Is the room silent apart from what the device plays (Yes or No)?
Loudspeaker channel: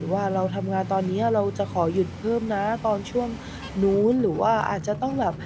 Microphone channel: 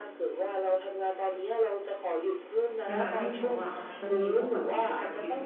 No